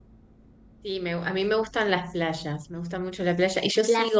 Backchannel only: Yes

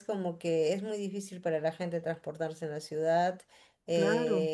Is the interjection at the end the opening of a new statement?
No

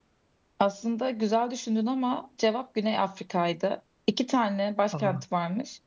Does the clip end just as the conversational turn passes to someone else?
No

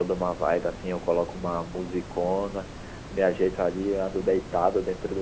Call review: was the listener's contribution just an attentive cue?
Yes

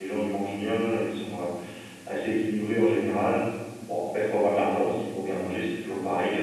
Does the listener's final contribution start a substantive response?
No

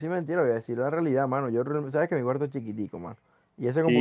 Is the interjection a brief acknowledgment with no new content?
Yes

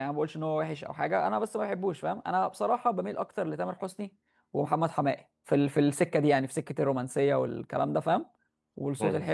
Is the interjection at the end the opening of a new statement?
No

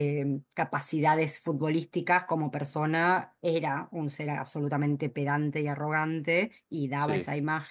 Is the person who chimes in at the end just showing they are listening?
Yes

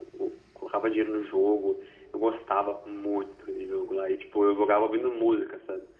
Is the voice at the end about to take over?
No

